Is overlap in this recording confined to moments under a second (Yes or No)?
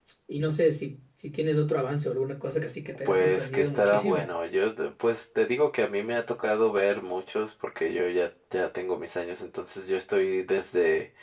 No